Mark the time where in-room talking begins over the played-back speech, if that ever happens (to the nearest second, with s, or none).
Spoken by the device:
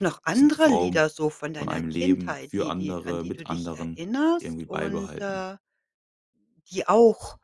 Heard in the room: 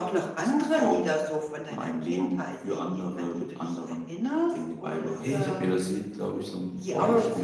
5 s